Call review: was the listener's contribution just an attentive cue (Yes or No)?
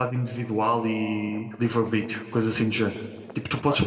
Yes